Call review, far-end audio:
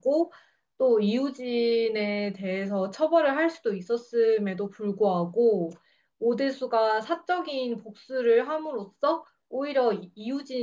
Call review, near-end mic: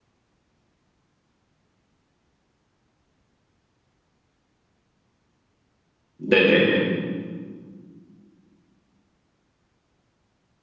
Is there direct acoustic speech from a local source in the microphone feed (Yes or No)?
Yes